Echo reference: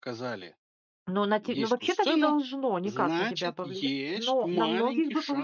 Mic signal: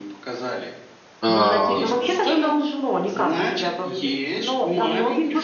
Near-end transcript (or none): Э,